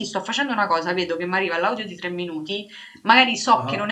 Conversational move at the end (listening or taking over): listening